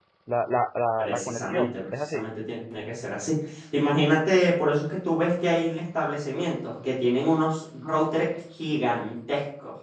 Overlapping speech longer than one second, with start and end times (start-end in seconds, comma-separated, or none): 1.0-2.2